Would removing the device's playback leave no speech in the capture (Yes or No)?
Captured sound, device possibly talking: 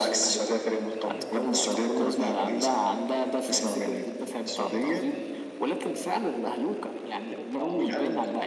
No